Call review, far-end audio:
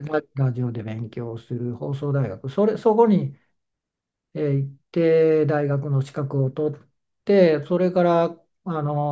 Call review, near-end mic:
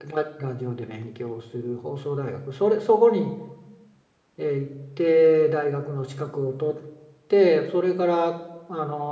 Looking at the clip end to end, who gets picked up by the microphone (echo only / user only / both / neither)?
echo only